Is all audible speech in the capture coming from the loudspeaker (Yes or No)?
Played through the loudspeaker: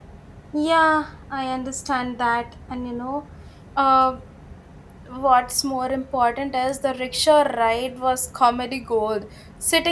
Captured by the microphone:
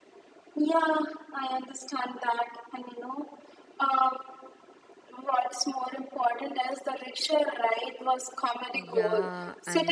No